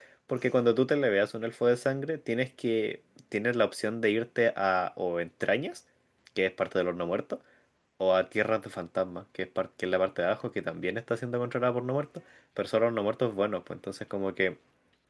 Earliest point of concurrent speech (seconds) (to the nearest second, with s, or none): none